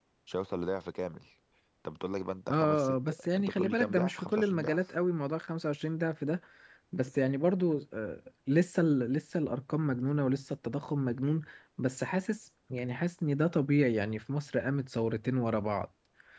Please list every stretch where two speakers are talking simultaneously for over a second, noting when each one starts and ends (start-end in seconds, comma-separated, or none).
2.5-4.8